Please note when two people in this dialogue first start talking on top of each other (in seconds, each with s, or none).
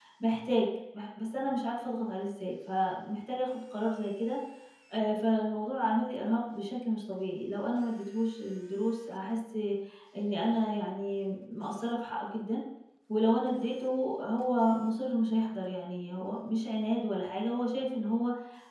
none